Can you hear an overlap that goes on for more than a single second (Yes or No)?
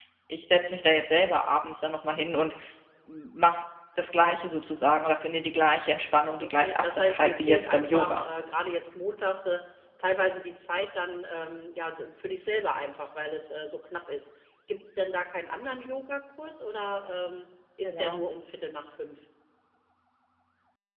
Yes